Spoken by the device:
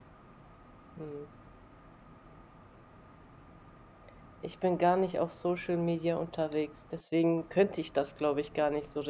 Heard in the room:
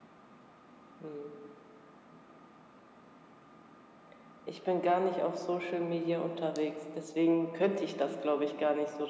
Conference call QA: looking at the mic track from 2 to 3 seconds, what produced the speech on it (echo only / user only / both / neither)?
neither